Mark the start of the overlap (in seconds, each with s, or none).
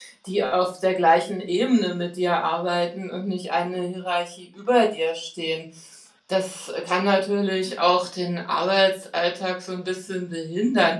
none